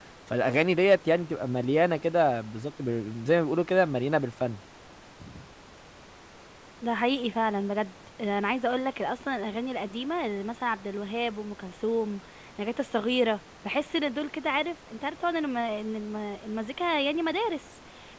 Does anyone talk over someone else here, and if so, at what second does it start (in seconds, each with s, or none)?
none